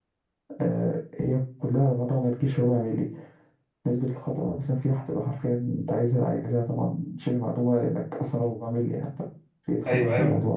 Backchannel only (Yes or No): No